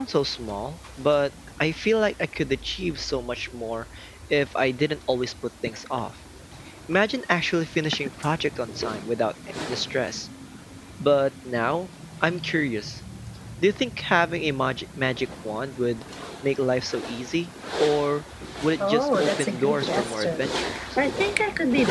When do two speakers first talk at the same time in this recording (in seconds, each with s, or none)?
18.8 s